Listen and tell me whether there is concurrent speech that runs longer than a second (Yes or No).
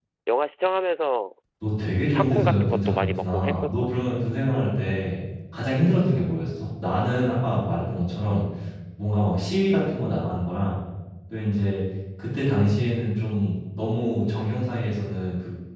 Yes